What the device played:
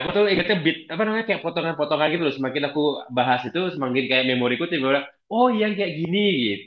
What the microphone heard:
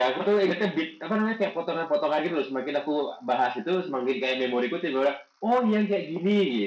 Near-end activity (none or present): none